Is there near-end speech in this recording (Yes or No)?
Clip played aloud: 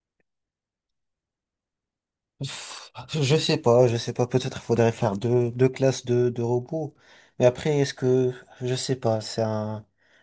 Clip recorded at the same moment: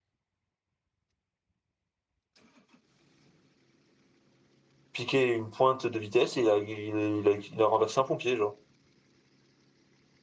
Yes